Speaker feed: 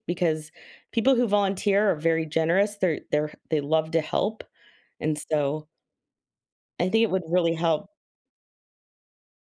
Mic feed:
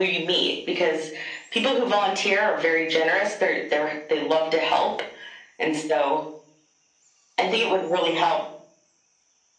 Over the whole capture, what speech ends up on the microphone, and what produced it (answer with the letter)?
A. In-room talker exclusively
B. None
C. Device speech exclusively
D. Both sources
C